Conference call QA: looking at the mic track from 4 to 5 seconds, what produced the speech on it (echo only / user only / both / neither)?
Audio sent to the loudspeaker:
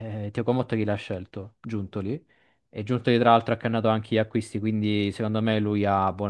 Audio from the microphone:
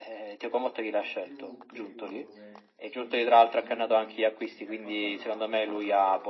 both